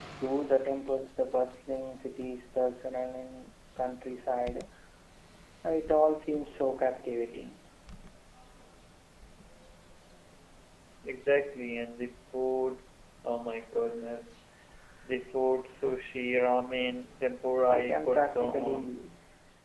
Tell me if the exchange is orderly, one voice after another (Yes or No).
No